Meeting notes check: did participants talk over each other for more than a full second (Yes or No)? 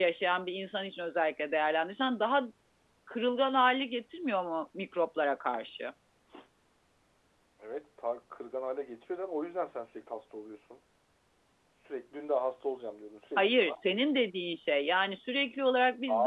No